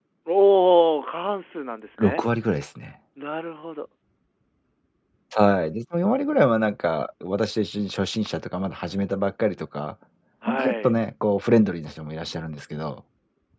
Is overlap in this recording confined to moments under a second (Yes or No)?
Yes